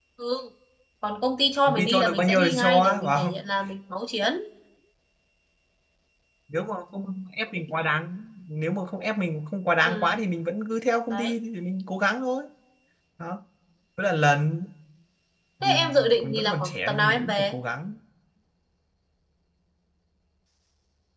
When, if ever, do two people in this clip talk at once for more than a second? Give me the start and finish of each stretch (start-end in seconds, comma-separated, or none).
1.7-3.3, 15.6-17.5